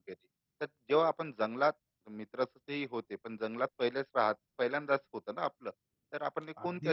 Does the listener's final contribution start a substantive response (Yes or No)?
No